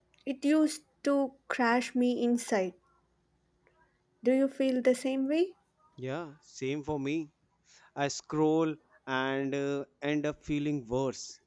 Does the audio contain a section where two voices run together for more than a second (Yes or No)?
No